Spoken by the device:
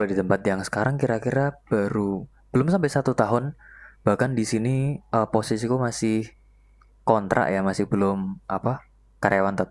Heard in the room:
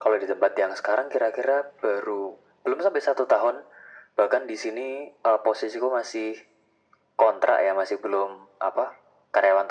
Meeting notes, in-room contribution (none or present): none